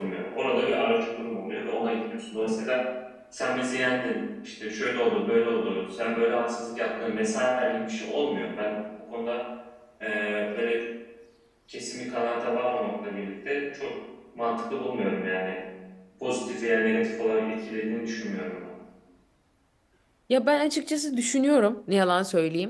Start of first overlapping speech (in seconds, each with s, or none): none